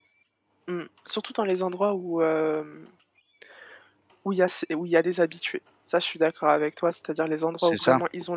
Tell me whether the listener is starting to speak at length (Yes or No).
No